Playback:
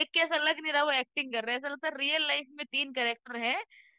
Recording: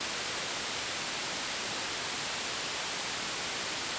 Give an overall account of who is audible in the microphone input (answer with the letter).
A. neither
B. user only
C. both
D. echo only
A